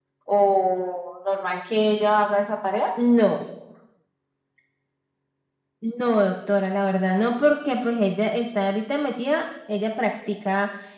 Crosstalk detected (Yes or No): No